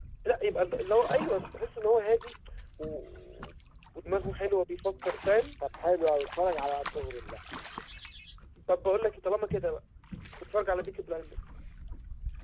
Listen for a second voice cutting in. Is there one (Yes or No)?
No